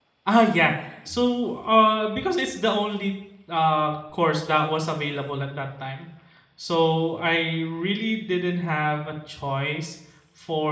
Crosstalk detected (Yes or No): No